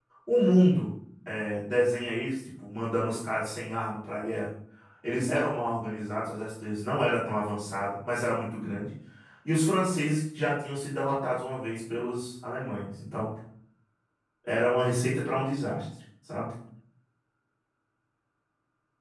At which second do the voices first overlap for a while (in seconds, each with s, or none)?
none